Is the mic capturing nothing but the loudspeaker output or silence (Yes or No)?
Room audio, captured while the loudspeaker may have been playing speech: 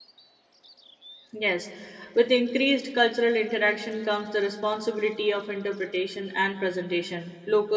No